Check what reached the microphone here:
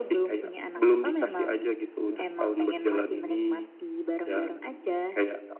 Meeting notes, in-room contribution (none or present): none